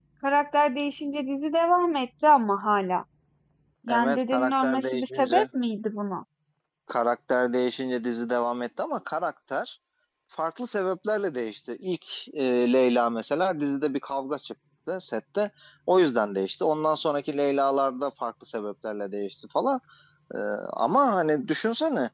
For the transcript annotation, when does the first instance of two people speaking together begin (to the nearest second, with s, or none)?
4 s